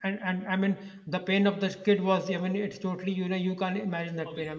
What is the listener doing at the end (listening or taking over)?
listening